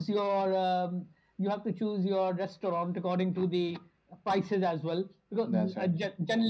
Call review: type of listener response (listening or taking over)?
listening